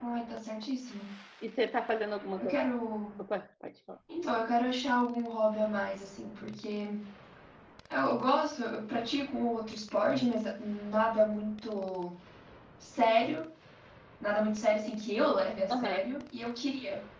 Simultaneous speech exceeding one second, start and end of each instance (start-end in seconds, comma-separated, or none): none